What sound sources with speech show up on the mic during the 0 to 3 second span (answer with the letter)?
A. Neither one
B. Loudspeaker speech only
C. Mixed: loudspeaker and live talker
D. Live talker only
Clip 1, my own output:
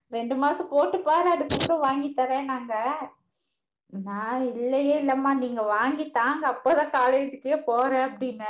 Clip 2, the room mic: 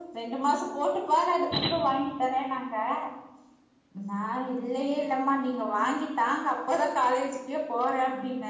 B